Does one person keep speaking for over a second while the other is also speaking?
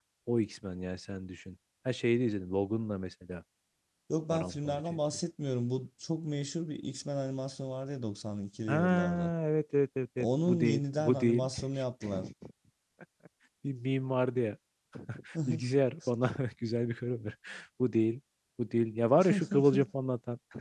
Yes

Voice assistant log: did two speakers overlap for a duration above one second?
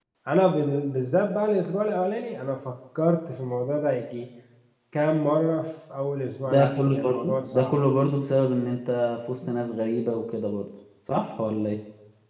Yes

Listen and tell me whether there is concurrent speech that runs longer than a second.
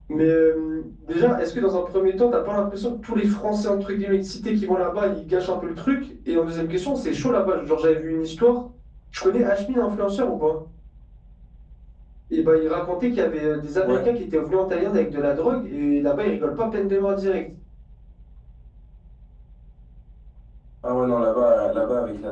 No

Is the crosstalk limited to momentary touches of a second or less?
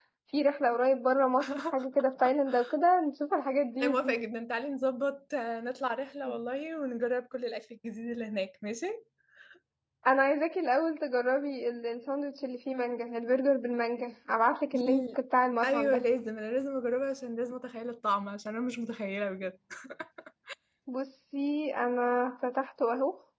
Yes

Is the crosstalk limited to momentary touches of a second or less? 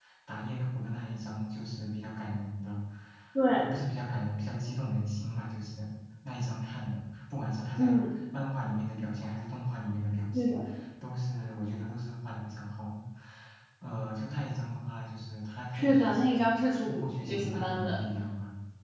No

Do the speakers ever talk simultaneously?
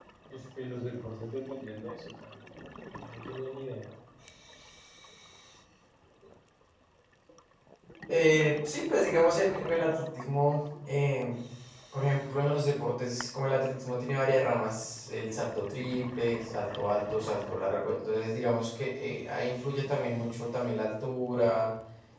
No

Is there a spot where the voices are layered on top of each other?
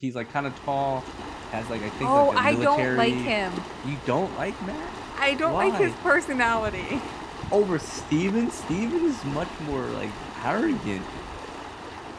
Yes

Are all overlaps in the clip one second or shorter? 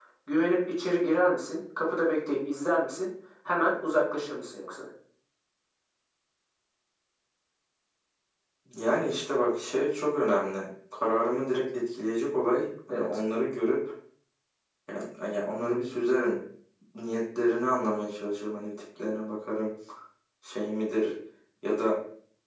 Yes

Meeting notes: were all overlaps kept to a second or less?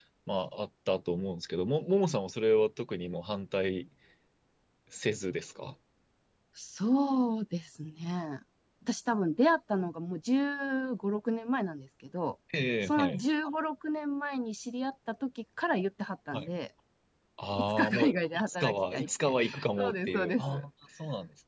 No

